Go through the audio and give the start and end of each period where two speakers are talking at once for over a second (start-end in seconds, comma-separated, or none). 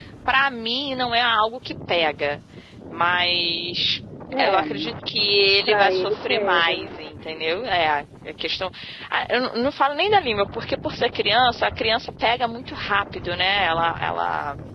5.7-6.9